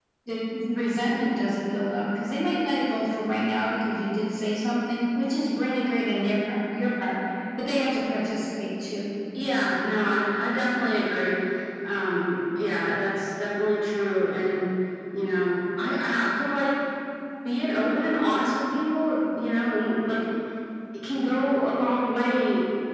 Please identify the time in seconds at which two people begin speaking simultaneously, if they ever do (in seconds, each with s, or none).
none